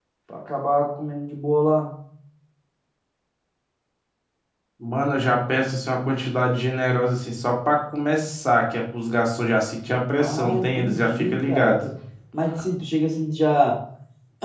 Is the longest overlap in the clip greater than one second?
Yes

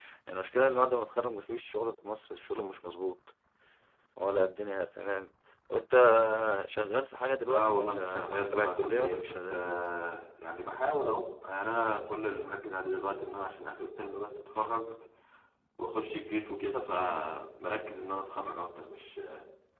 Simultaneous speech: Yes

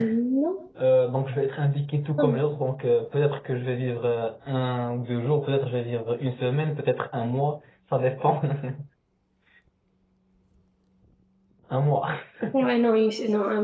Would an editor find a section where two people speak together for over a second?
No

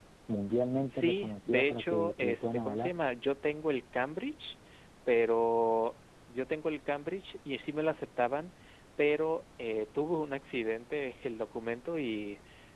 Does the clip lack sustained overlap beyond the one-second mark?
No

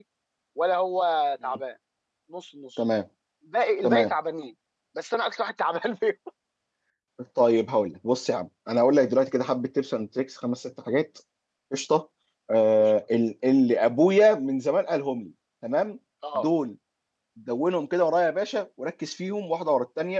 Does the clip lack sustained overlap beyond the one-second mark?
Yes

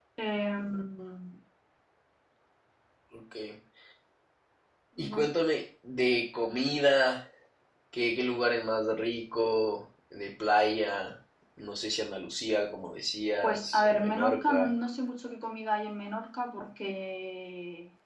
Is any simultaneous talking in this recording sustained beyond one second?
Yes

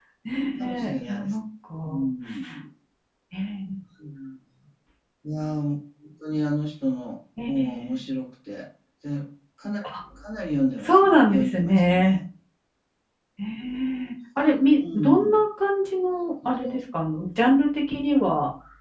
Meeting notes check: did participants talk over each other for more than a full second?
Yes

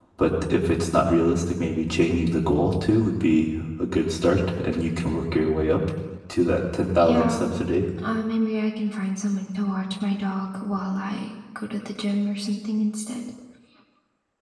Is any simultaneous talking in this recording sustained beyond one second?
No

